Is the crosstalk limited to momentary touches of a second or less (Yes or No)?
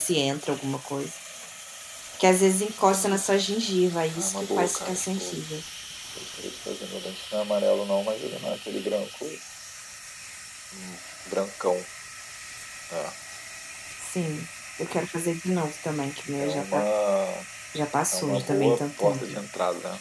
No